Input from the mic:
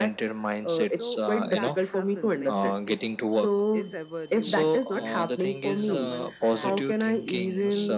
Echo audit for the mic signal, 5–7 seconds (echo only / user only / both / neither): both